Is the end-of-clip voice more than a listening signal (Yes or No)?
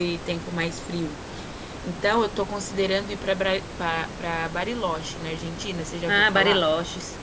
Yes